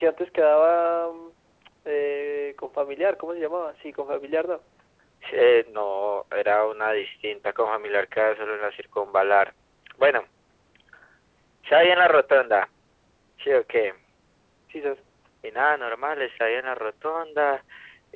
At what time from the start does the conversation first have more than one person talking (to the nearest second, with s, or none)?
none